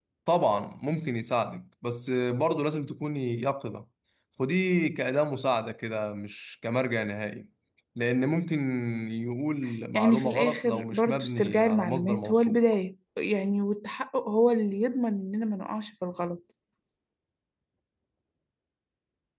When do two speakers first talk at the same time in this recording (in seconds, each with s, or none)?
9.9 s